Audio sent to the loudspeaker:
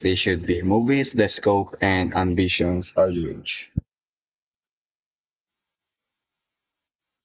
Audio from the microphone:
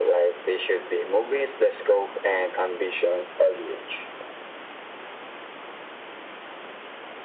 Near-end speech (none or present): none